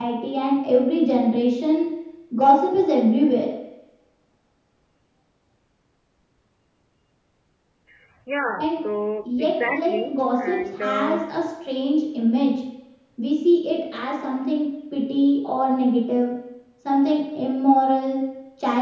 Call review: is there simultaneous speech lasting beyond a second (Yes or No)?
Yes